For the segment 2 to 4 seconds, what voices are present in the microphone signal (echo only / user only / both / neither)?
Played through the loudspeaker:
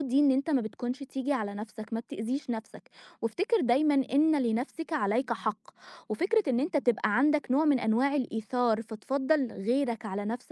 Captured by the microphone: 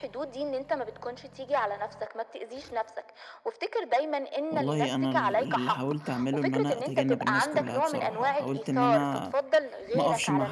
echo only